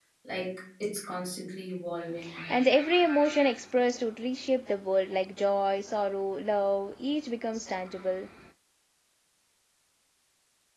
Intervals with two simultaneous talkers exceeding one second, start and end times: none

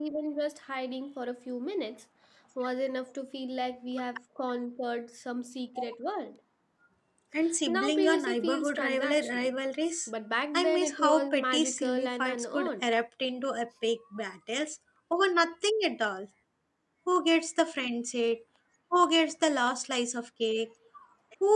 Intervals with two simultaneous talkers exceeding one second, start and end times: 7.7-9.5, 10.5-12.9

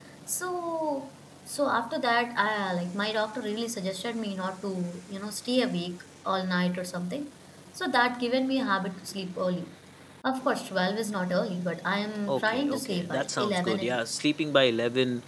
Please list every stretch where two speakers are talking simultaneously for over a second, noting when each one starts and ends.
12.3-14.2

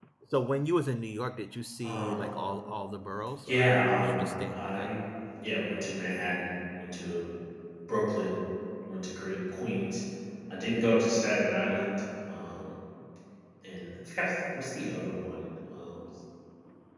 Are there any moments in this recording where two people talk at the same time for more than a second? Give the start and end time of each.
3.4-4.9

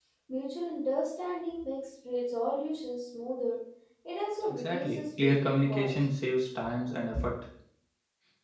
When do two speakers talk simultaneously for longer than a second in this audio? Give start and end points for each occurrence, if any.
4.5-6.0

